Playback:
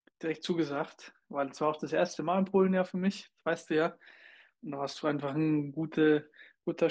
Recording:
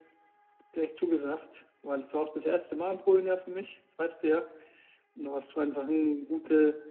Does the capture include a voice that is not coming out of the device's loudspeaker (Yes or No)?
No